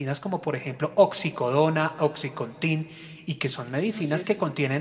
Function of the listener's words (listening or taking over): listening